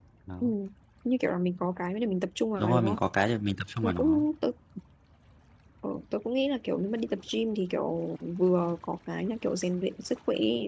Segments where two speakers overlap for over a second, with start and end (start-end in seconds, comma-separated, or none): none